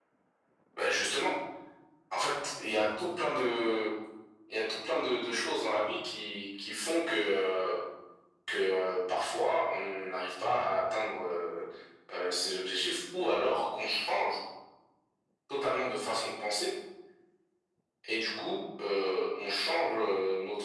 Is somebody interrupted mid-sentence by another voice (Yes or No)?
No